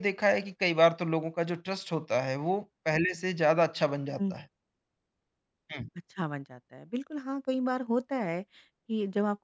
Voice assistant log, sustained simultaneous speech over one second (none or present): none